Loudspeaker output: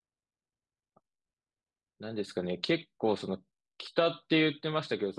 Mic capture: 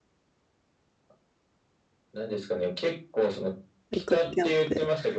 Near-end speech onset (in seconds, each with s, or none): 3.9 s